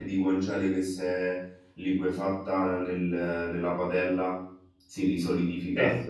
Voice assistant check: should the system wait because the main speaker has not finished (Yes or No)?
Yes